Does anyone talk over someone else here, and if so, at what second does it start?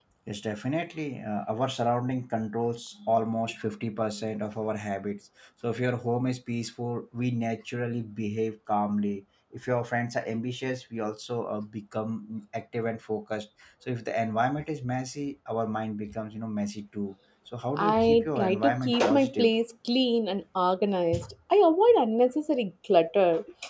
17.8 s

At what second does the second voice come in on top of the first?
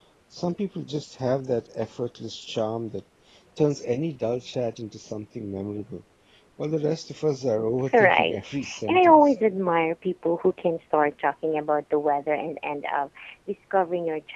7.9 s

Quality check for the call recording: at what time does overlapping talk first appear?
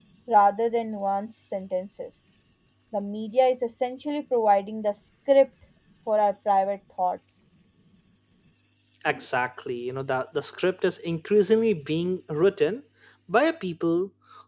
none

